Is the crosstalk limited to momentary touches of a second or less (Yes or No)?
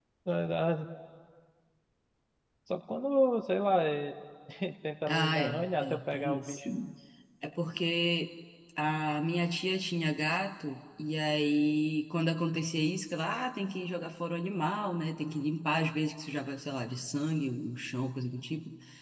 No